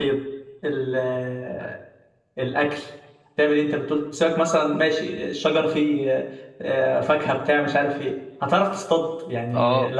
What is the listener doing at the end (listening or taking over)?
taking over